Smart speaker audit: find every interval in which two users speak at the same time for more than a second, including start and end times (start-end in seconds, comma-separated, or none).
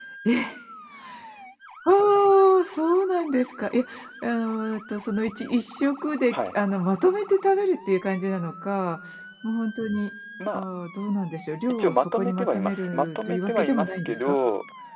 11.7-14.4